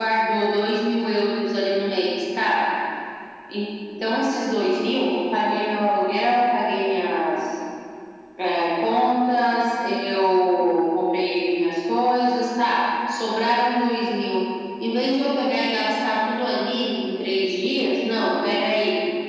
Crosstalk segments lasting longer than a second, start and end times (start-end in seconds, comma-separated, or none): none